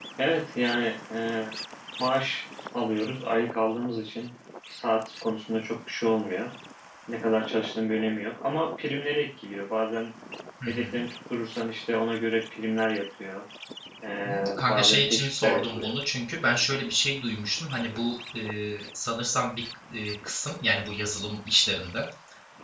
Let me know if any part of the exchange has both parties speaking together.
Yes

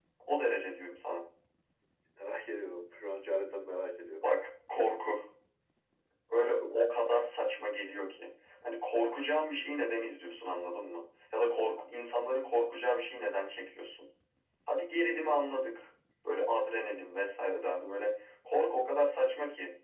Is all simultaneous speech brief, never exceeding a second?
Yes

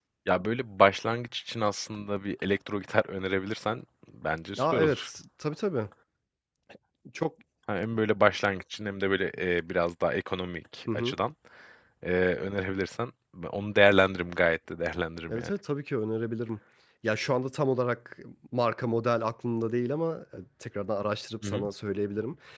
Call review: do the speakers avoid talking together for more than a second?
Yes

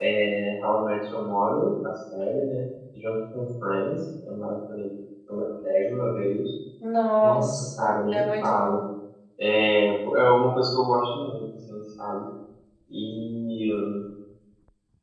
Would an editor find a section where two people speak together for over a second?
Yes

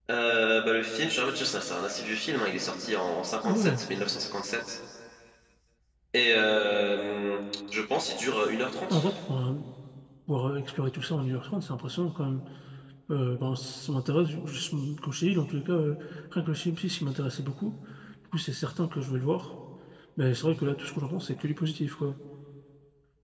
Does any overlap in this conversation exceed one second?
No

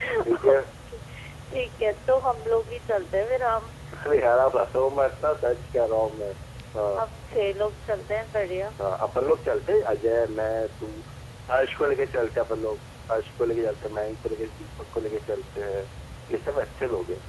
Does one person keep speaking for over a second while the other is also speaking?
No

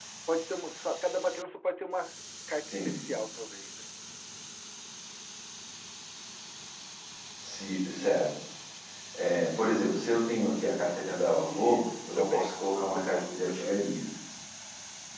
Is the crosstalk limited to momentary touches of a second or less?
No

